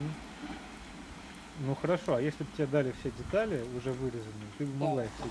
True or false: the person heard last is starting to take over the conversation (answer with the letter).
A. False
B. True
B